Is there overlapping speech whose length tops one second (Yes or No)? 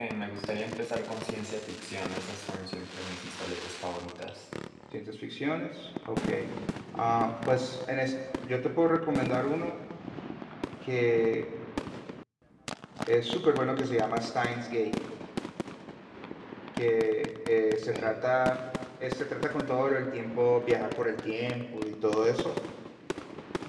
No